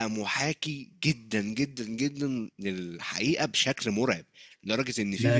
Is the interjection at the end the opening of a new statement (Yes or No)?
Yes